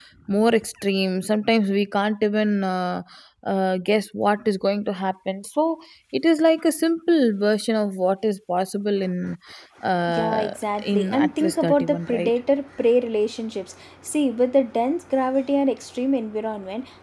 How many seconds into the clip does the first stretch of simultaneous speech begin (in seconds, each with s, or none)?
10.1 s